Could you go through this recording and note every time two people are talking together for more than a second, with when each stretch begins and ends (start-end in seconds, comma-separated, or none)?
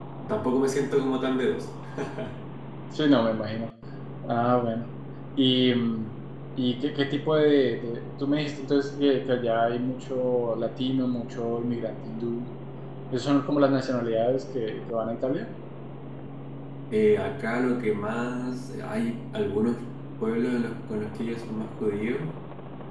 none